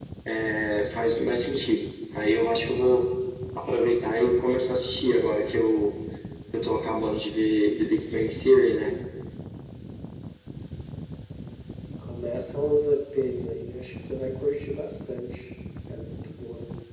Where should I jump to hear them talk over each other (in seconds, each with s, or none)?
none